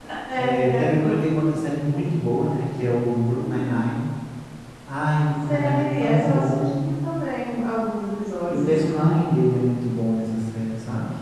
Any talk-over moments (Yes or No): Yes